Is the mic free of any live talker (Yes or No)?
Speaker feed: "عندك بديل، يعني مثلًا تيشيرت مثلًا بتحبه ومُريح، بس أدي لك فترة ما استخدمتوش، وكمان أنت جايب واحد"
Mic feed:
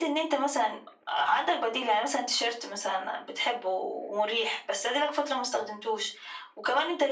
Yes